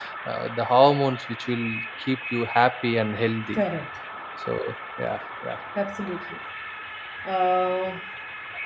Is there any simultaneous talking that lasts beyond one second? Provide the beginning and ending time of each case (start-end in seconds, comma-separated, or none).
none